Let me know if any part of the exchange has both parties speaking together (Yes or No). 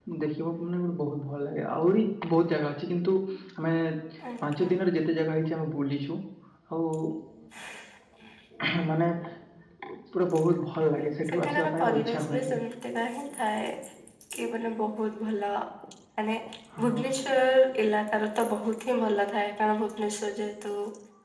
Yes